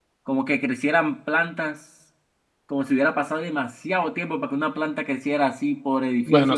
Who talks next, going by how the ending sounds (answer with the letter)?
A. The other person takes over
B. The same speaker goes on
A